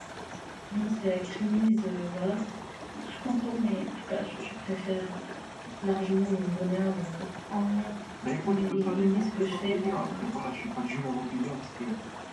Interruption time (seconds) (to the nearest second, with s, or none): 8 s